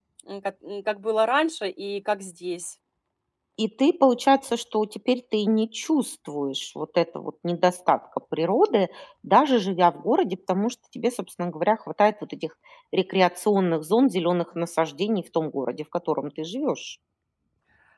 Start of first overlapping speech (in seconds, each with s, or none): none